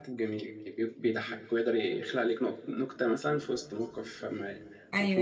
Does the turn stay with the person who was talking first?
No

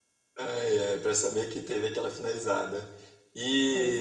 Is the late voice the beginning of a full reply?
No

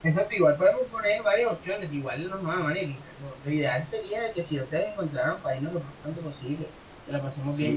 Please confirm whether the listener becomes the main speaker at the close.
Yes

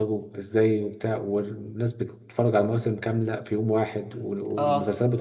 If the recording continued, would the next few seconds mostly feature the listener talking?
No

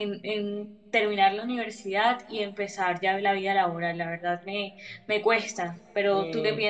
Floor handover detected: Yes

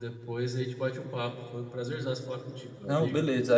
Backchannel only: No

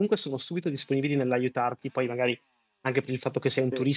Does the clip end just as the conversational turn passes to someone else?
No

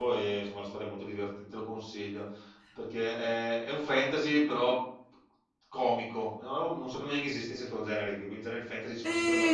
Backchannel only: No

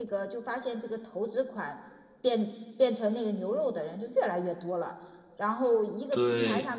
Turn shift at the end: No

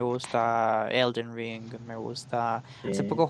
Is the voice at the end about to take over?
No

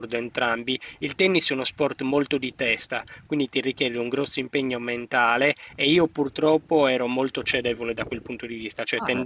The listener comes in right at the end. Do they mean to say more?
No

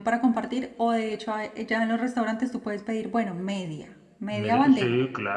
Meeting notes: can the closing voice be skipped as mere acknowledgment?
No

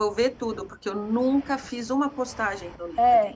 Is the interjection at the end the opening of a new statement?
Yes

